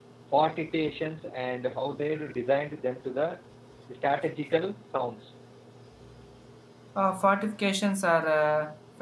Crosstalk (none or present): none